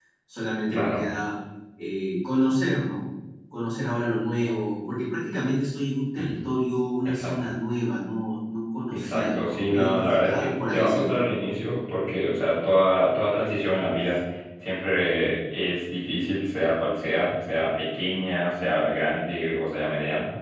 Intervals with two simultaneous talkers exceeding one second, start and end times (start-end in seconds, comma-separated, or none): 8.9-11.1